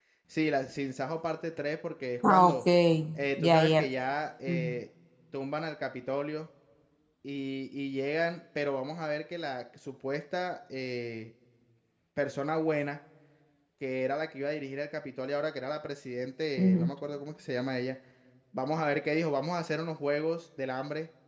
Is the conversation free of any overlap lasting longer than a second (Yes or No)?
Yes